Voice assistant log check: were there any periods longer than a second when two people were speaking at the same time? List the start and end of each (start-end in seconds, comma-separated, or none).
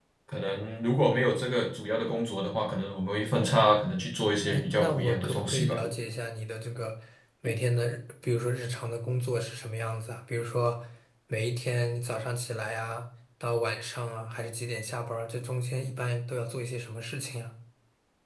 4.5-5.8